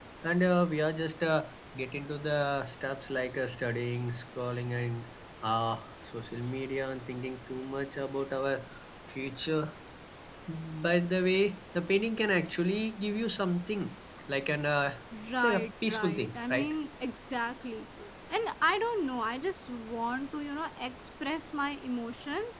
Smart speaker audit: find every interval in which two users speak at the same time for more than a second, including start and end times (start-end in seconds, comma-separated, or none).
15.4-16.7